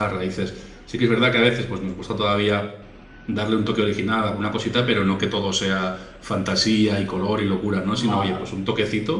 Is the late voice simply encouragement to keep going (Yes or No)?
Yes